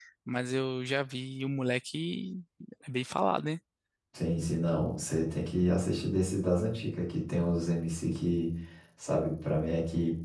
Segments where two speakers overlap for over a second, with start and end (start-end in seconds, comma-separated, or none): none